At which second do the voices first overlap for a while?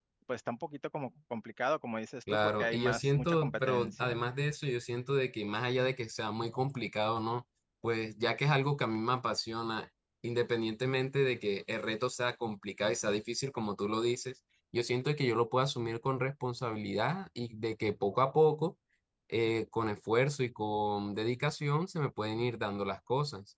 2.3 s

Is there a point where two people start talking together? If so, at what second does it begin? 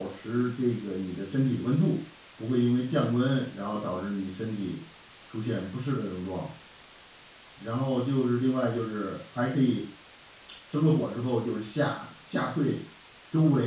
none

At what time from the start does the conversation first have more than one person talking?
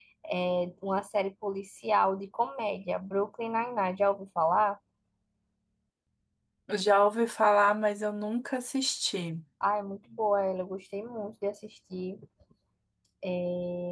none

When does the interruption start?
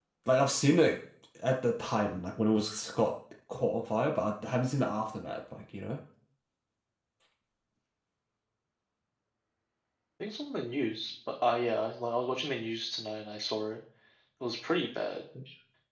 none

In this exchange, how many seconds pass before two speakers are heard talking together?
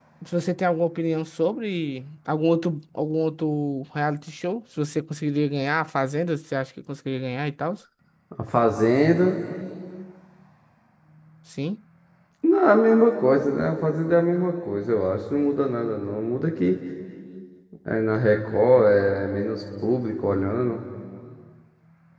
none

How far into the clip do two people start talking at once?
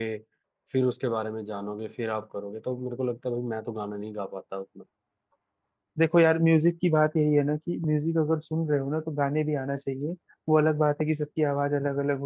none

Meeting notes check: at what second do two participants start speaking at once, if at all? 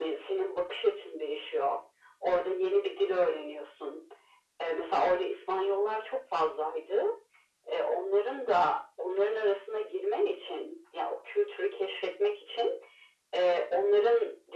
none

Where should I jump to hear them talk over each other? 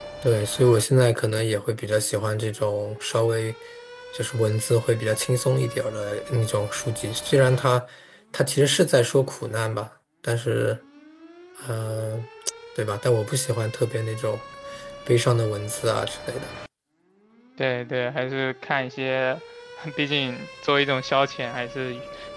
none

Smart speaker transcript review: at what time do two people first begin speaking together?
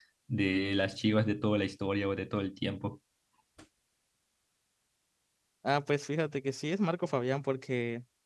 none

